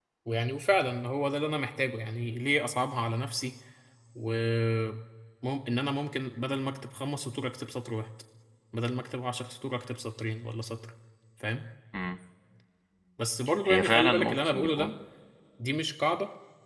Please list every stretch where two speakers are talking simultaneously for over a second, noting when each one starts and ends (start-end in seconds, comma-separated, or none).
13.7-14.9